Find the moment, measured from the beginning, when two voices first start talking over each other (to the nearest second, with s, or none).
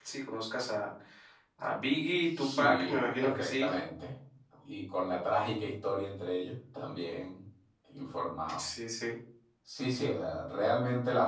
2 s